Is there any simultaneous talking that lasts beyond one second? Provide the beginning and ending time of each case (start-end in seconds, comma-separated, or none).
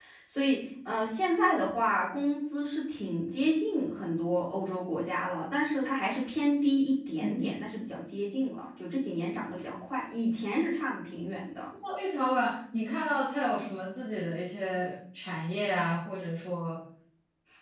none